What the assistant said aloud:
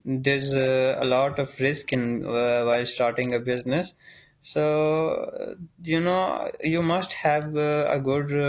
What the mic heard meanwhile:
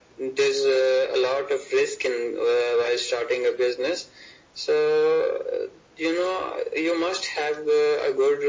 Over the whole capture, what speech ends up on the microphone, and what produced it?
echo only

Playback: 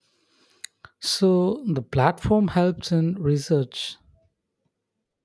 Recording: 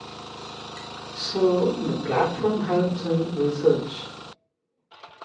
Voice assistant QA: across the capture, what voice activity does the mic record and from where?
echo only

